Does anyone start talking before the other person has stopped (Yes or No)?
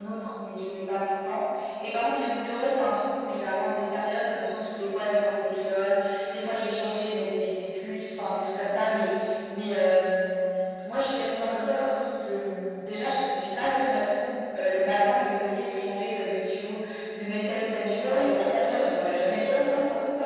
Yes